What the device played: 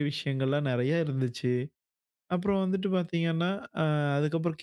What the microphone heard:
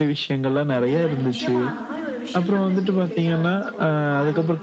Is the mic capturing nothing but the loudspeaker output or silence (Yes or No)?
No